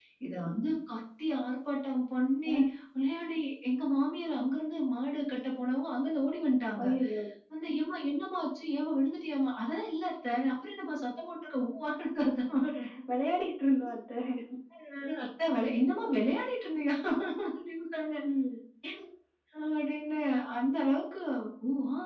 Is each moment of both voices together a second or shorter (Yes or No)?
Yes